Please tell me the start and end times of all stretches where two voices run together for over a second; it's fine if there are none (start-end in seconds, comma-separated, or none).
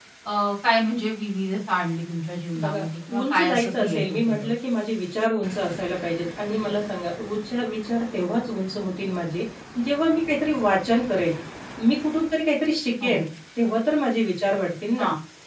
2.6-4.5